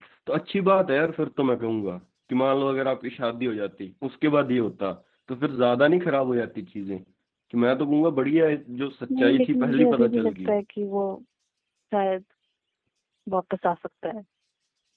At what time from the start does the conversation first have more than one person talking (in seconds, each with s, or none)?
9.1 s